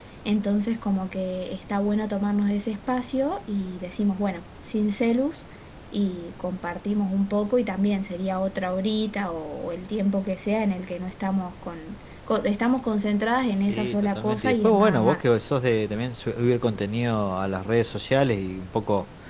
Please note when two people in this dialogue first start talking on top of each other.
14 s

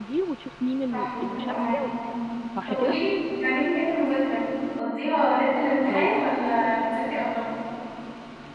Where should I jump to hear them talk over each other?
1 s

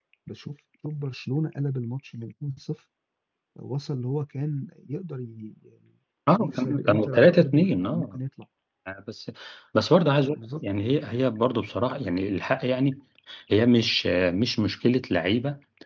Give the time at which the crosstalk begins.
6 s

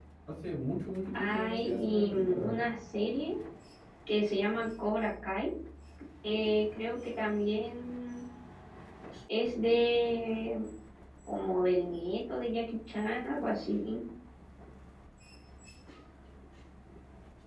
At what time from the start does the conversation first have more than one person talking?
1 s

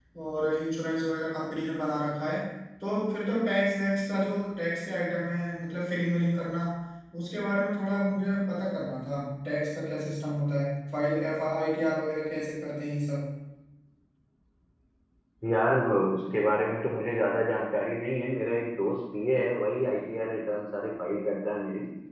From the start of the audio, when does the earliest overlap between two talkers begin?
none

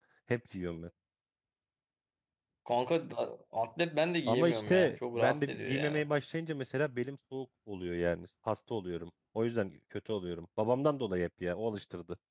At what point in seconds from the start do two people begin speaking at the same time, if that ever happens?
4 s

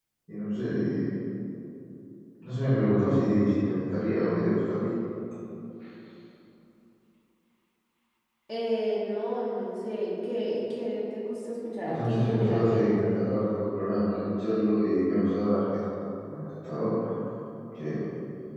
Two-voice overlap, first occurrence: 12 s

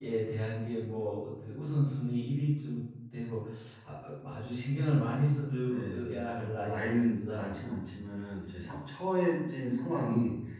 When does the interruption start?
6 s

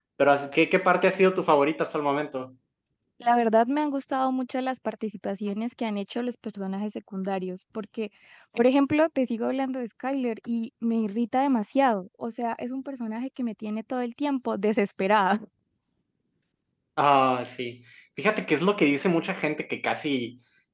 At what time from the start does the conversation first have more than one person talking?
none

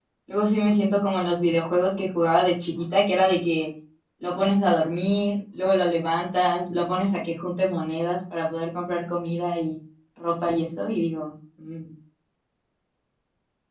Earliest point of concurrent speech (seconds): none

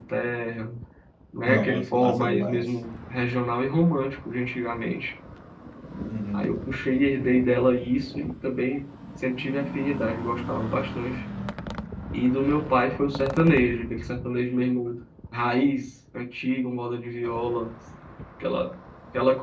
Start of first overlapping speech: 1 s

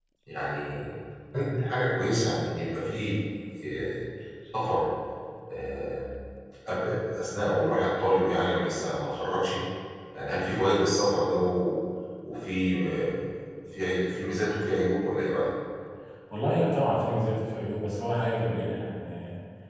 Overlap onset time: none

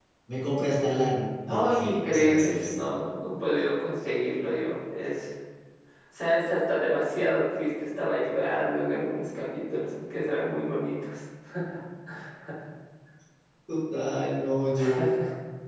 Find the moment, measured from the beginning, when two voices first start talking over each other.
1 s

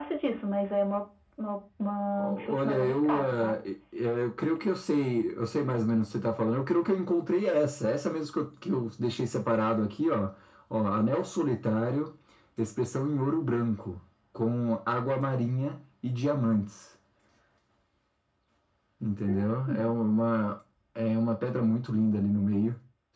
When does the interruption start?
2 s

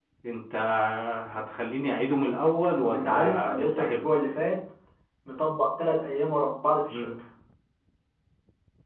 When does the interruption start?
3 s

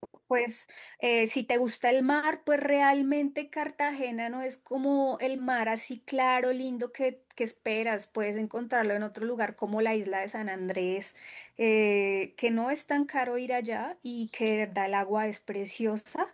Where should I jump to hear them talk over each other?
none

